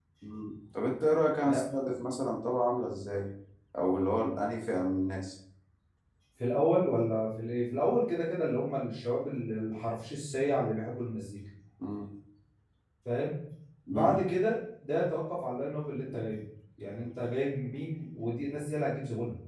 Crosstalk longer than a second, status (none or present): none